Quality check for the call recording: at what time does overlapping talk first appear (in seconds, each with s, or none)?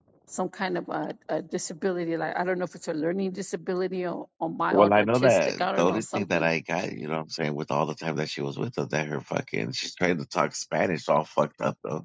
4.7 s